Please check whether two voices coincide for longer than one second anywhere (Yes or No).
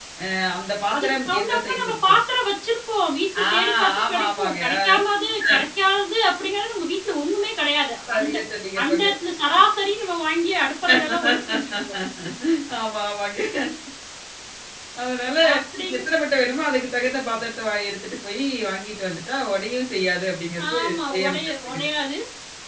Yes